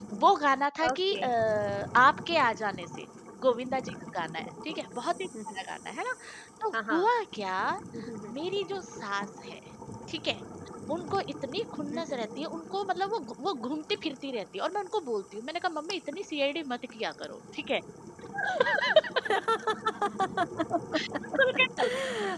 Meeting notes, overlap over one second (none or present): none